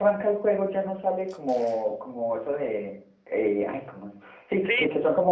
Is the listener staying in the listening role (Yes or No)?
Yes